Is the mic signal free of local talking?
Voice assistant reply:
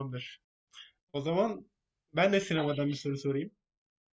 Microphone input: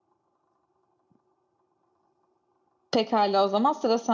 No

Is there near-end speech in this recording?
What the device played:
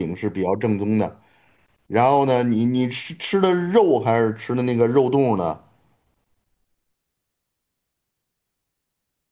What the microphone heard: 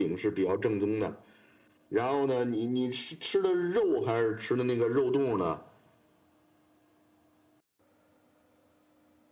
No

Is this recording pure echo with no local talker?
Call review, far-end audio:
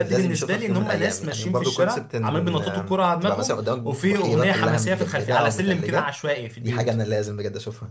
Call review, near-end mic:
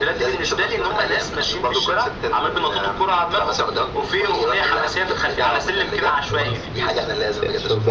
No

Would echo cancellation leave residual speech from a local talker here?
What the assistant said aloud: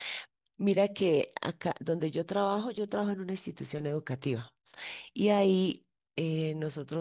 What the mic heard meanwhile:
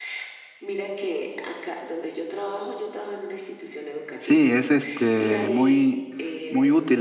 Yes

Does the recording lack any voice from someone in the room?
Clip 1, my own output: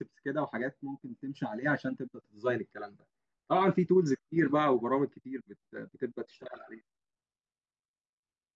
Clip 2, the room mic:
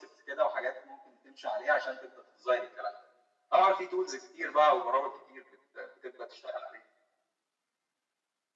Yes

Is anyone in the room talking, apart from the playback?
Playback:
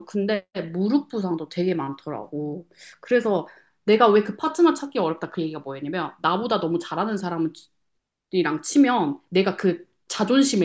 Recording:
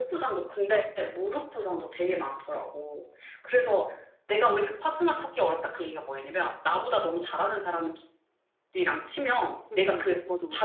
Yes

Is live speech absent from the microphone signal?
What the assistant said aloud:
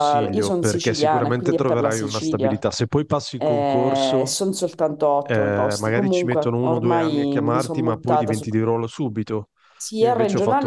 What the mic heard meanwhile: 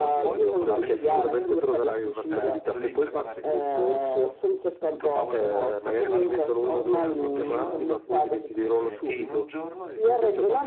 No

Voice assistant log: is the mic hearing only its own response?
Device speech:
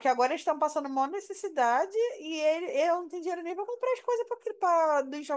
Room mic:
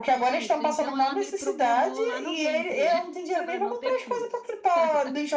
No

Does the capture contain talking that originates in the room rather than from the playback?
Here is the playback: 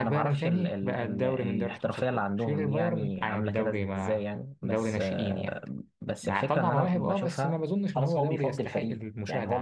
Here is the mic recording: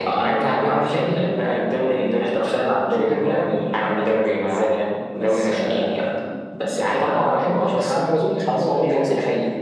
No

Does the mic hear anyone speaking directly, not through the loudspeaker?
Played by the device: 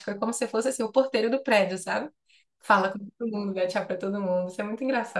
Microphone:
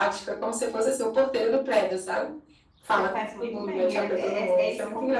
Yes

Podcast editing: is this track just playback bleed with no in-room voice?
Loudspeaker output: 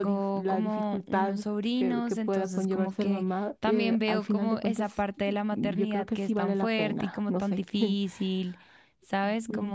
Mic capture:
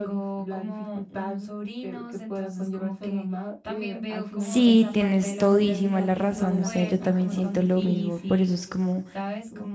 No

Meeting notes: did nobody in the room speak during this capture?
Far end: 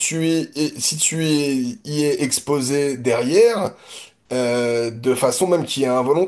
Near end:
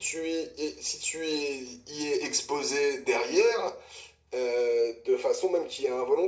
Yes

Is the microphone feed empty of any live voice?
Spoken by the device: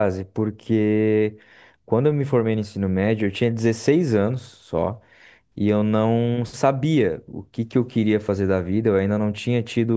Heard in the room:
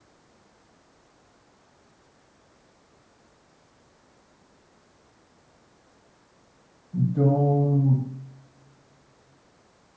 No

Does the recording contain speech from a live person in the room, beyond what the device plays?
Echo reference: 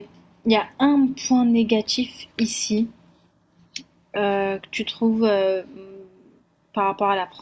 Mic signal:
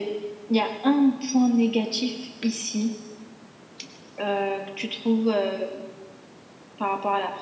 No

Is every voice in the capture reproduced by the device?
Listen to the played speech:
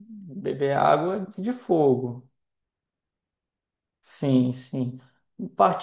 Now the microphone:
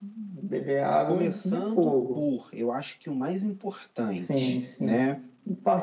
No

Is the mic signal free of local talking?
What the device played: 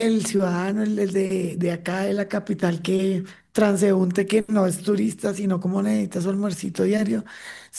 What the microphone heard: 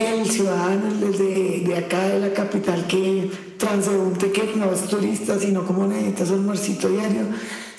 Yes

